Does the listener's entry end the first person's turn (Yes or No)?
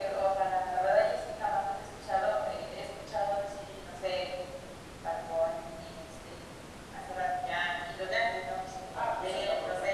Yes